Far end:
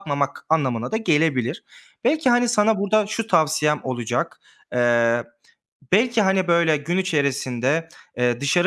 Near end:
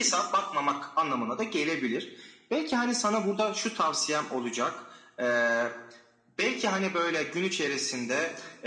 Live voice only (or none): none